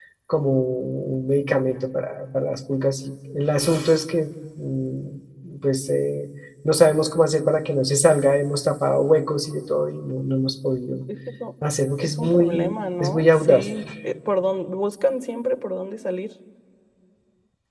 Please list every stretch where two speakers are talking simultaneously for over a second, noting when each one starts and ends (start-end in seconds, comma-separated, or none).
12.0-13.7